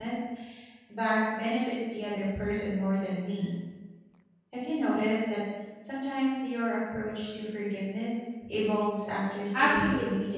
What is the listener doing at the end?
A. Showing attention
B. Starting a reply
B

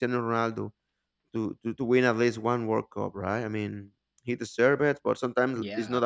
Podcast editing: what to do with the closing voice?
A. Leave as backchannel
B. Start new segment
A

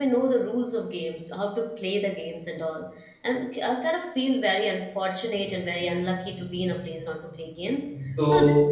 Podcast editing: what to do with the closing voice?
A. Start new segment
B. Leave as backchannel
B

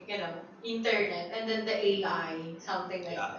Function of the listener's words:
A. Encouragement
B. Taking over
B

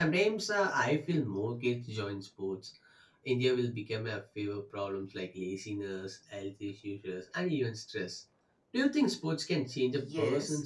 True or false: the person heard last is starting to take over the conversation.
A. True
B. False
A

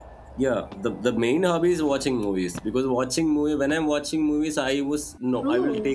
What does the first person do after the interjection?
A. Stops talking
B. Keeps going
B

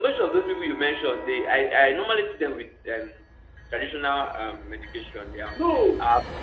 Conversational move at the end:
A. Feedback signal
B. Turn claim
B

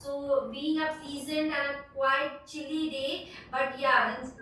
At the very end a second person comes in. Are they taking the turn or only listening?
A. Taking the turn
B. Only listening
A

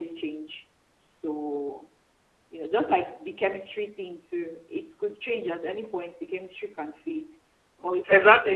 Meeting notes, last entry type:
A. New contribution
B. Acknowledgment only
A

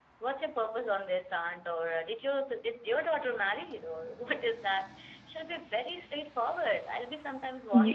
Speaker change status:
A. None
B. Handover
A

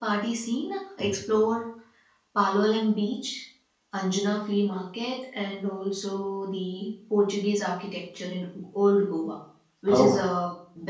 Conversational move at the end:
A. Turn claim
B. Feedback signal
B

